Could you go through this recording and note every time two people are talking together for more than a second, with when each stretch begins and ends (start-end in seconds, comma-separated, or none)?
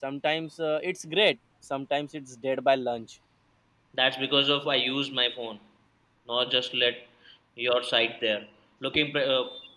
none